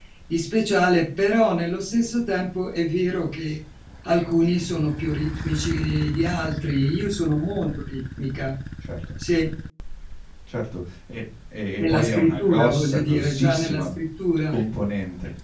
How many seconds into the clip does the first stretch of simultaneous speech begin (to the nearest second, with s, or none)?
12 s